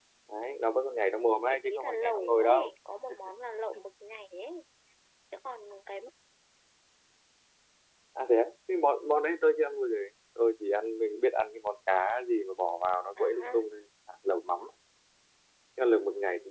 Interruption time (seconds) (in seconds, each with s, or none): 1.5 s